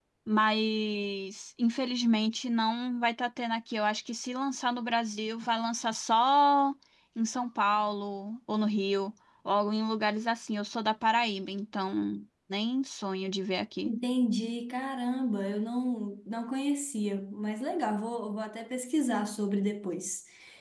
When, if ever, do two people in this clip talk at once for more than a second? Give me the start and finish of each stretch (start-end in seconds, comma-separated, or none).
none